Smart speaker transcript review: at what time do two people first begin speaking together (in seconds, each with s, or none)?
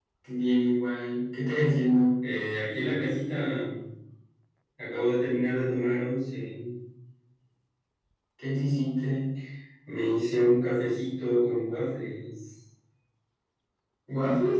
none